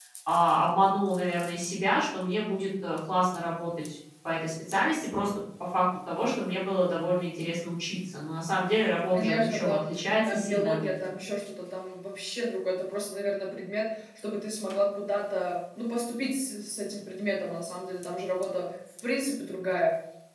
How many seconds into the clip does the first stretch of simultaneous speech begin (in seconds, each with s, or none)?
9.1 s